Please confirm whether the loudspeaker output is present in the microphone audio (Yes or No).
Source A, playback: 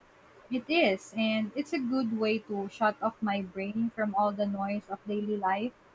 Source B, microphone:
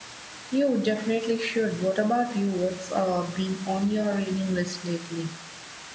No